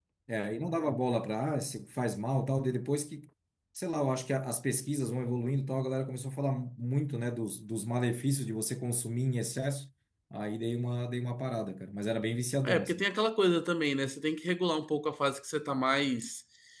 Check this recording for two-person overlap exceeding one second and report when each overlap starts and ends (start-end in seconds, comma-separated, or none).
none